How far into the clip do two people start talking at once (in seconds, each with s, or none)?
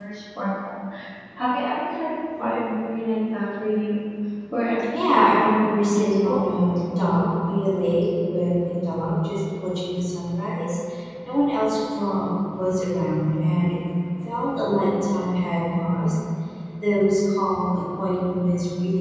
4.9 s